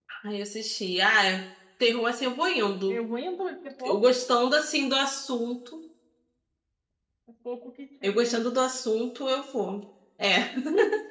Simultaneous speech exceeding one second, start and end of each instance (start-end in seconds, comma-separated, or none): none